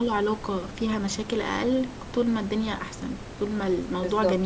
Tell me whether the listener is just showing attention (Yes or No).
No